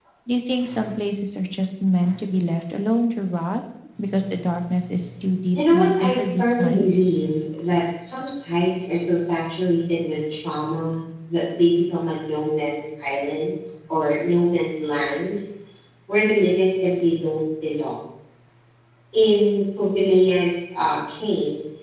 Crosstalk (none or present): present